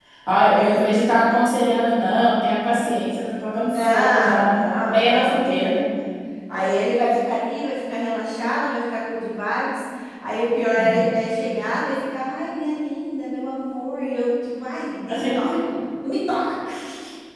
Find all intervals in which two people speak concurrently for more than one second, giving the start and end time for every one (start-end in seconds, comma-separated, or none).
3.7-5.7